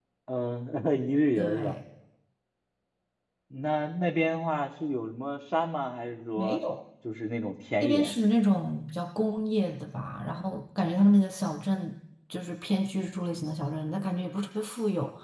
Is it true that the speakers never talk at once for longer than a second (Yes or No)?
Yes